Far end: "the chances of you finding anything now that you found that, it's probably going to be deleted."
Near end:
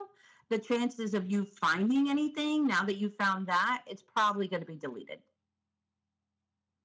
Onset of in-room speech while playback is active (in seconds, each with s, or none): none